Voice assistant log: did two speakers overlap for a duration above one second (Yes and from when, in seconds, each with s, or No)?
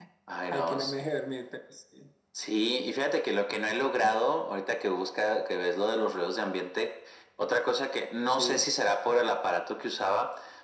No